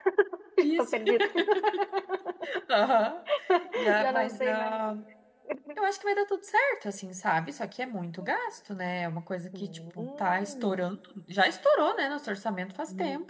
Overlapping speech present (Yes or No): Yes